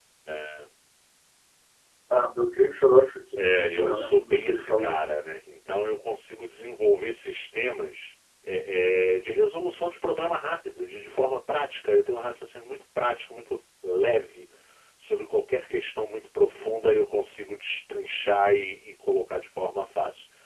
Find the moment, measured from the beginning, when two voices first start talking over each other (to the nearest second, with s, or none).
3 s